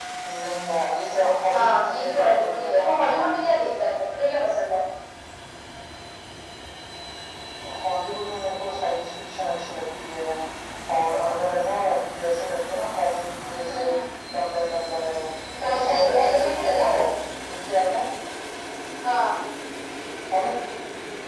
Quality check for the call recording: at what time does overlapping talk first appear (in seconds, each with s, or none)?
1.5 s